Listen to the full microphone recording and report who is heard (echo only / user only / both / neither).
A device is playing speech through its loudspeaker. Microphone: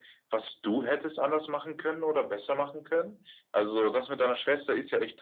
echo only